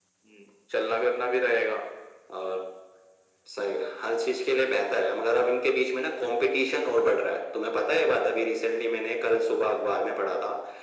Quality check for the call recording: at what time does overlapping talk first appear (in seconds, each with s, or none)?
none